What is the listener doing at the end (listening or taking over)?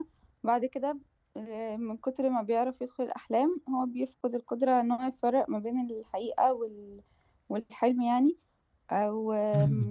listening